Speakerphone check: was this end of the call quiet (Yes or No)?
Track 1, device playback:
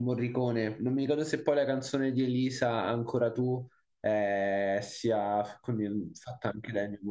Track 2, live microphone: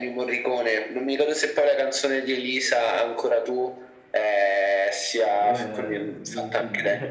No